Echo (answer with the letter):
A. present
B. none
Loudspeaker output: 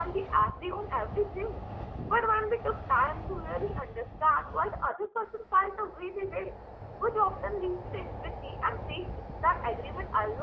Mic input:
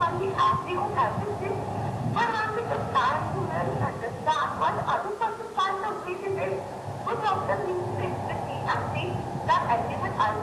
A